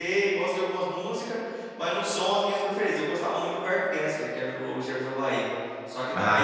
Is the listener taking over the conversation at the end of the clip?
No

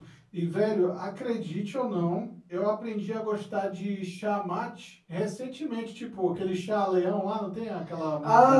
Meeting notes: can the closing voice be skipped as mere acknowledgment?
No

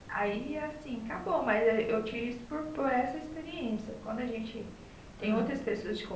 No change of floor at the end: Yes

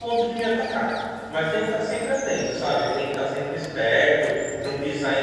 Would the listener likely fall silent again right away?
Yes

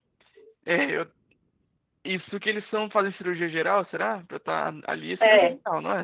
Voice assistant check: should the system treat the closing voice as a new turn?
Yes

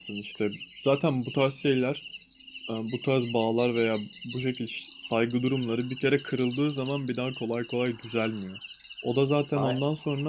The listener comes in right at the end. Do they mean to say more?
No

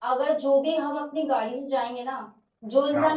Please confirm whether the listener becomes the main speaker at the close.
No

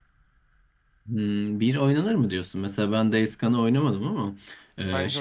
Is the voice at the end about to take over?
No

